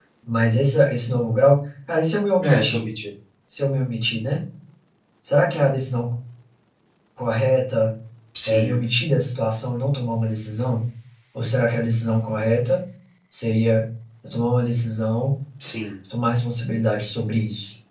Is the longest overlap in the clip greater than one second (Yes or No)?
No